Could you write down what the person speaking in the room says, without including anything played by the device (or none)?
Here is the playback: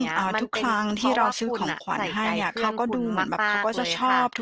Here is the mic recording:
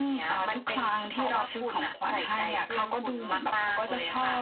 none